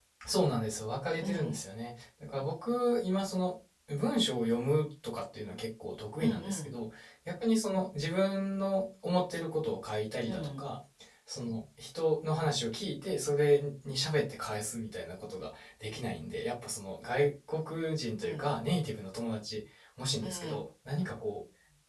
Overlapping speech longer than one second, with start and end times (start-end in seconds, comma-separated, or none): none